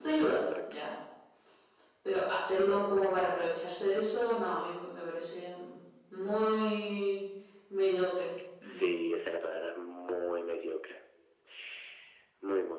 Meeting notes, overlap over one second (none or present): none